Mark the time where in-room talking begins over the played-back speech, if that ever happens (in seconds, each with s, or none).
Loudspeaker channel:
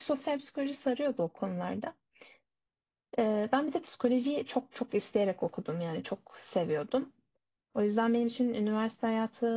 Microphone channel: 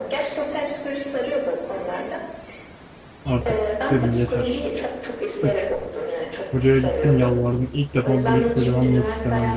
3.2 s